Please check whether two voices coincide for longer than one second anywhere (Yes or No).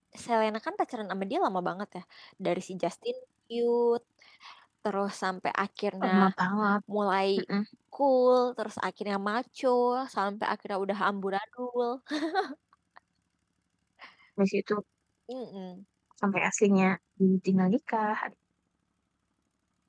No